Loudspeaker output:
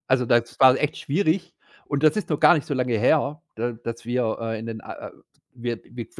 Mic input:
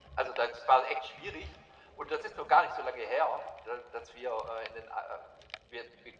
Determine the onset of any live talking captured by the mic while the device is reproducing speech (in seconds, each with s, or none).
none